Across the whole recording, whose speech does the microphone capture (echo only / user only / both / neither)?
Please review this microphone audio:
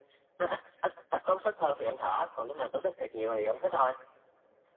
echo only